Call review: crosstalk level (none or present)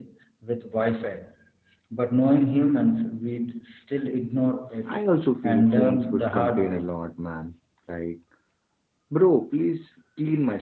present